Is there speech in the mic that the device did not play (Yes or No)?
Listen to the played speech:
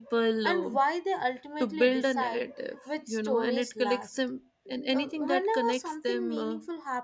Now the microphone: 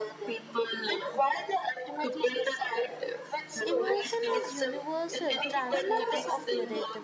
Yes